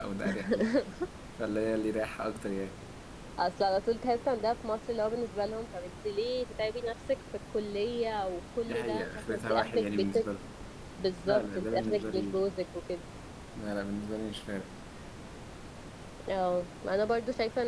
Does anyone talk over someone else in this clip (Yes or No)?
Yes